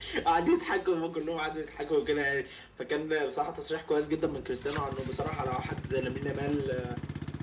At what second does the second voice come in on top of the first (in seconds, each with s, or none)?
none